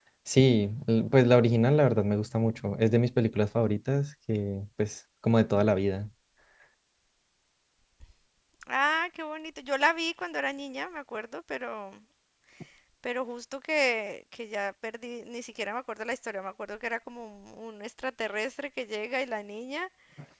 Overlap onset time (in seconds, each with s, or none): none